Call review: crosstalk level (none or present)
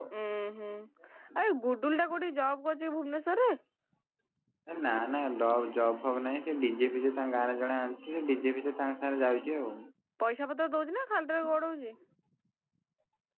none